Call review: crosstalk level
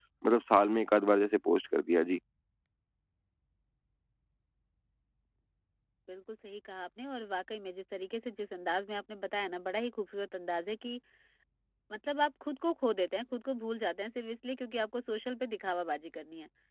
none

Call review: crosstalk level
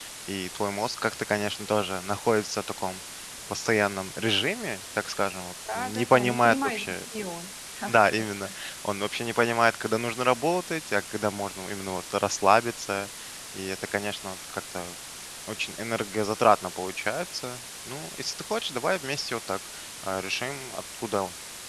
present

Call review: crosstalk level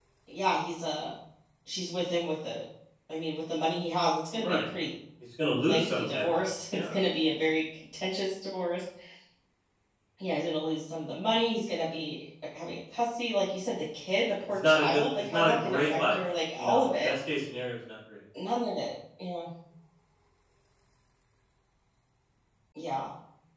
present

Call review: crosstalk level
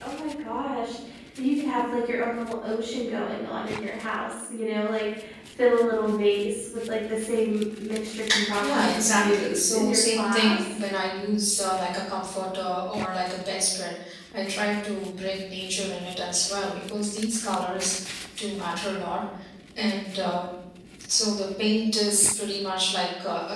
present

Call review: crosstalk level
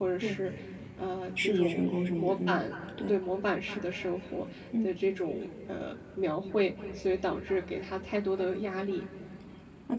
present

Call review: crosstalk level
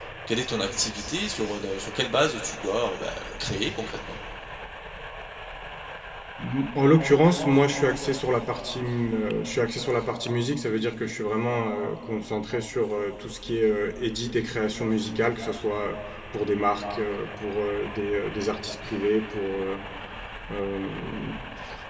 none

